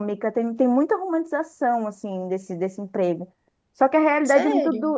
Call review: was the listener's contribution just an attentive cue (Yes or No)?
Yes